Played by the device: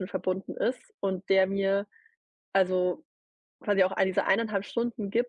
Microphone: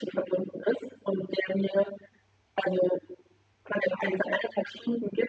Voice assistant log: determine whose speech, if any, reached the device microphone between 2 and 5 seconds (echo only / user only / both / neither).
echo only